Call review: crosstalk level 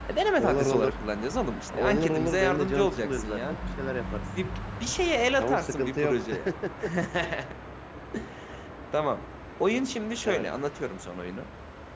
present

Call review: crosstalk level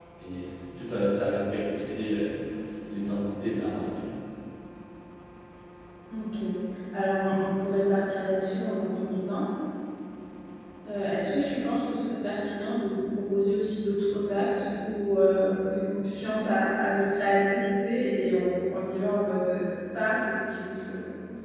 none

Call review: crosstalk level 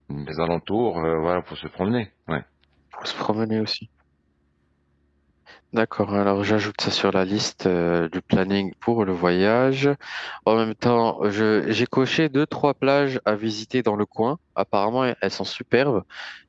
none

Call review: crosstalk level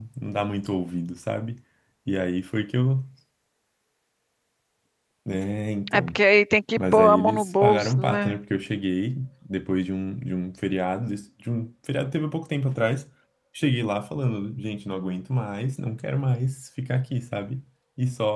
present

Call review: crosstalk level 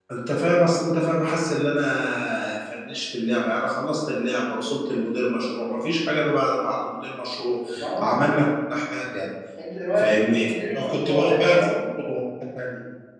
present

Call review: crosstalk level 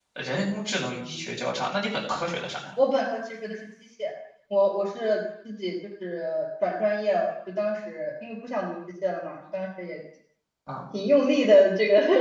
none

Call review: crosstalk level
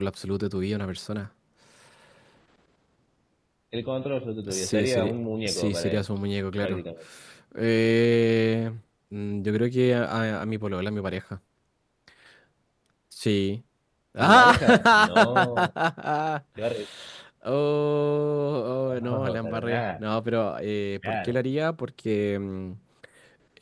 present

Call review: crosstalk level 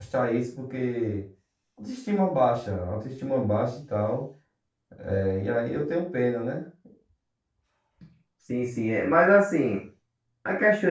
none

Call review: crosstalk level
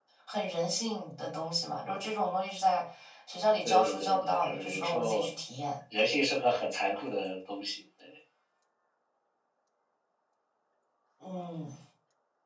present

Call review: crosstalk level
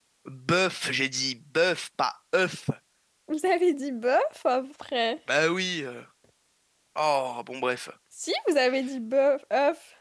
none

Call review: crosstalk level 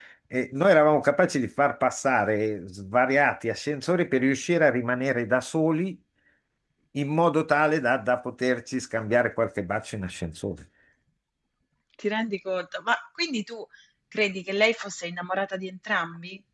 none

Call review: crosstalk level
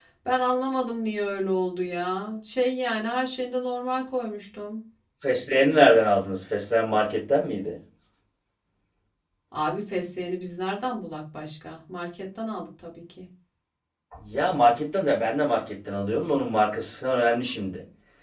none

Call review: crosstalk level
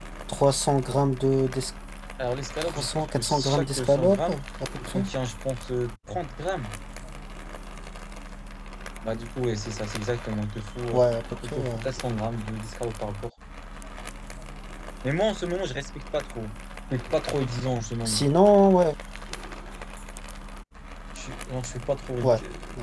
present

